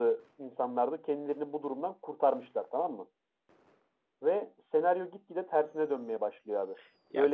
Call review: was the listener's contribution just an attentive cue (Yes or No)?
No